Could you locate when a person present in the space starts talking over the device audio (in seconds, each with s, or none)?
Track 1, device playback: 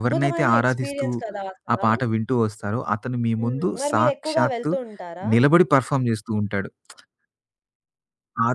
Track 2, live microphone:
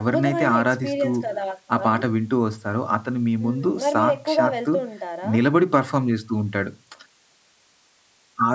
none